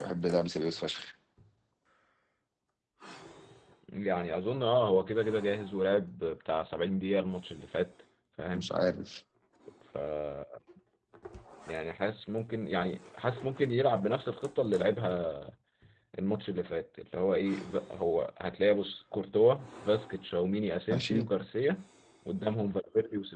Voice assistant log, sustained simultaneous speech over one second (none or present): none